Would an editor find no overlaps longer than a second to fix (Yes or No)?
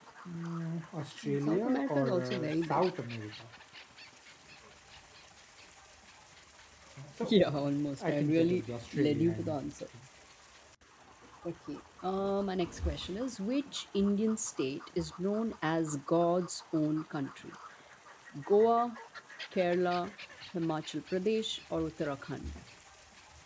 No